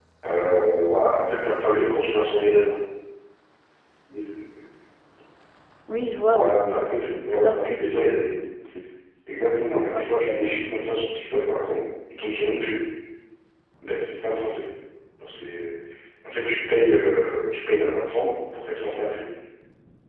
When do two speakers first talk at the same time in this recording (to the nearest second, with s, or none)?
6 s